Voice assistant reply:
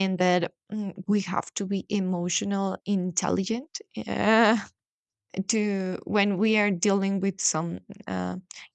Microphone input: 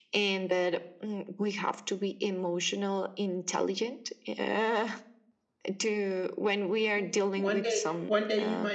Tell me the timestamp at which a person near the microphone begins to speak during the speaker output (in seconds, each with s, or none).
7.0 s